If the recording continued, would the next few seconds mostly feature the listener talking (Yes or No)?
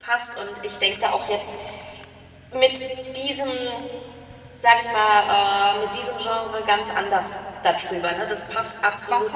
Yes